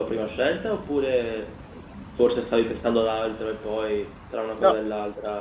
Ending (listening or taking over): taking over